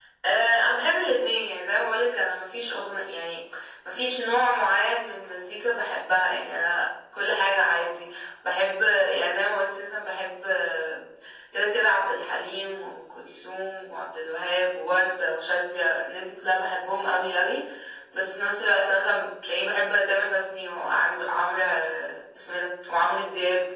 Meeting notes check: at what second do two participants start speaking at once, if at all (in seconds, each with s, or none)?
none